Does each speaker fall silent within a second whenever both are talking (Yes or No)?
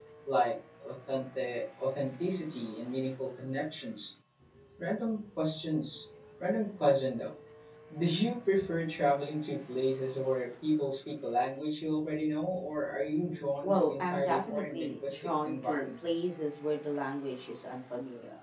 No